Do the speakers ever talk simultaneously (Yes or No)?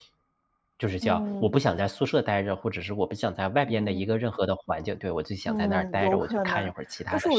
Yes